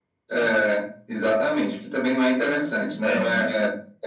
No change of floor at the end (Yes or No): Yes